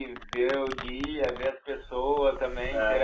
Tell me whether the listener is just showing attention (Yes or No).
Yes